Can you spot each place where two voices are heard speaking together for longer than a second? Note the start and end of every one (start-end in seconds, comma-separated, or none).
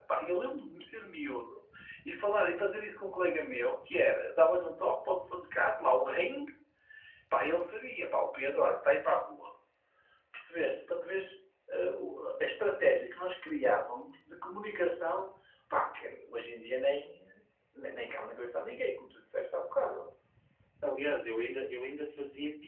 none